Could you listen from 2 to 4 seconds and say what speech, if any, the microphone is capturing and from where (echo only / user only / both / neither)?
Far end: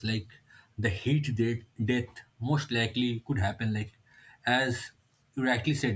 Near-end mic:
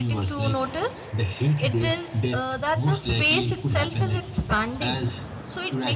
both